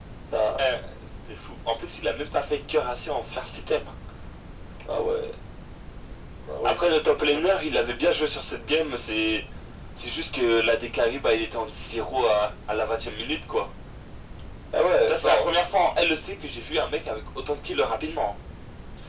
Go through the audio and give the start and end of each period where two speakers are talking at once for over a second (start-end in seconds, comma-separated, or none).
none